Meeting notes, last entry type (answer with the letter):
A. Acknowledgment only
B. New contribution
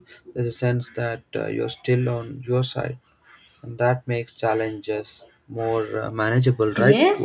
B